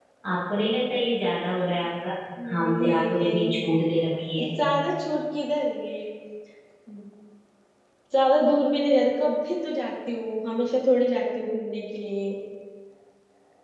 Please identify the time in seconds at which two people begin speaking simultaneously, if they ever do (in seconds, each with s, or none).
2.5 s